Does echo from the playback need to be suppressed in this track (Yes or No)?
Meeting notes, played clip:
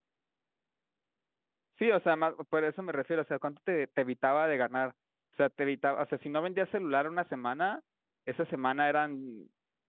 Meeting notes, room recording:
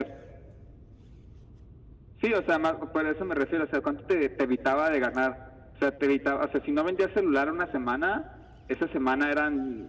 Yes